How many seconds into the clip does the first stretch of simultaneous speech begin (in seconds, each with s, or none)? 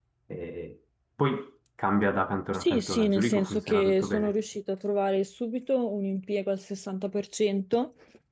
2.5 s